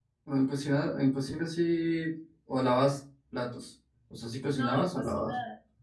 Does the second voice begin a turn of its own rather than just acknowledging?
Yes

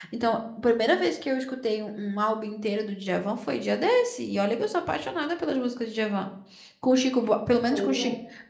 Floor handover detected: No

